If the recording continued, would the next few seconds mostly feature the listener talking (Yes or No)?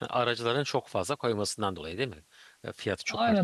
Yes